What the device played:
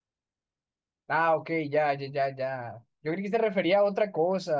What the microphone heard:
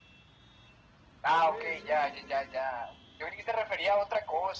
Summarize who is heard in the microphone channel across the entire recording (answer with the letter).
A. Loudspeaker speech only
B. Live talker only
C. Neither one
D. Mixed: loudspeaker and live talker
D